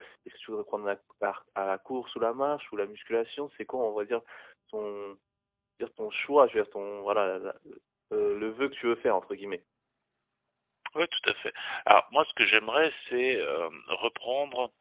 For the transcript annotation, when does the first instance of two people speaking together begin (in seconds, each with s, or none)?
none